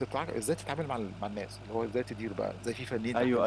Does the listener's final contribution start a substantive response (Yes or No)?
Yes